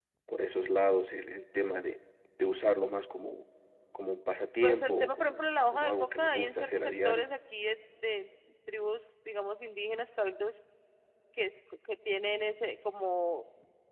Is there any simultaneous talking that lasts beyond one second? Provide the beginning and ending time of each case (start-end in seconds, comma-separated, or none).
4.6-7.3